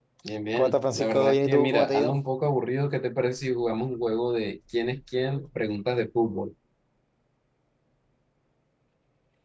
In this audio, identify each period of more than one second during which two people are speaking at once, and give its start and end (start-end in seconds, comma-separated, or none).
0.6-2.2